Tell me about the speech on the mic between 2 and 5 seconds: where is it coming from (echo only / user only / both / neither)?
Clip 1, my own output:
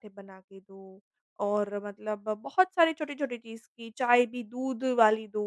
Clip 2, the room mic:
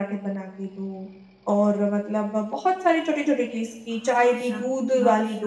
both